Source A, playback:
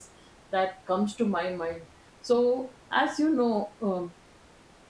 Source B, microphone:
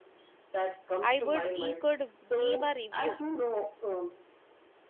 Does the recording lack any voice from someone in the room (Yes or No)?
No